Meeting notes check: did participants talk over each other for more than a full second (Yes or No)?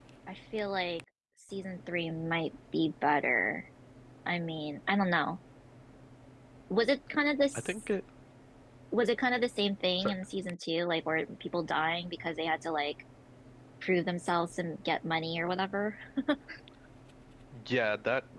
No